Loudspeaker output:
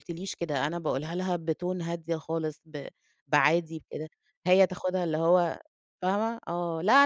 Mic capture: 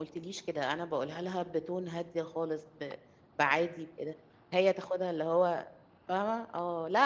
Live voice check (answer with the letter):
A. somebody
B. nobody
B